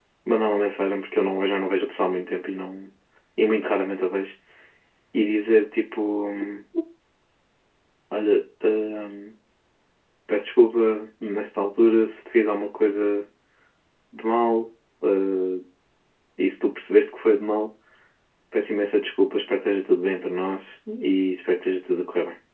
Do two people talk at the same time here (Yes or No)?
No